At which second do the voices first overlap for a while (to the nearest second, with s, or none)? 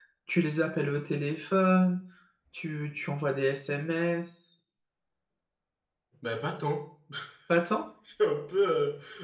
none